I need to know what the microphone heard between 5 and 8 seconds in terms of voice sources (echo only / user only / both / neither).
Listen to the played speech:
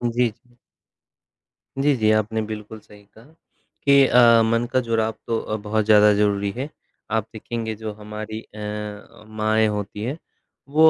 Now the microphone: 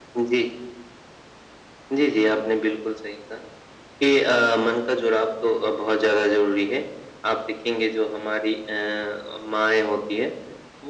echo only